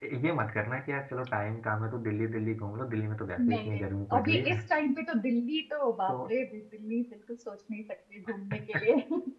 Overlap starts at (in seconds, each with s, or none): 3.4 s